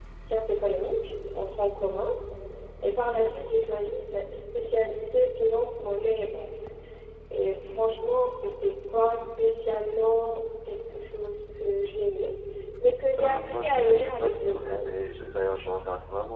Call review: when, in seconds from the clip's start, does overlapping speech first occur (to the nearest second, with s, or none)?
13 s